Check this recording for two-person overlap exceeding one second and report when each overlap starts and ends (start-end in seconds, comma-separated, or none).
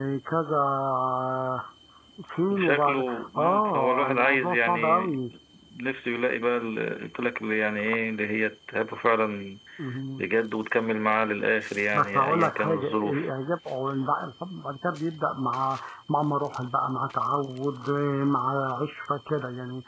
2.5-5.1, 11.9-13.2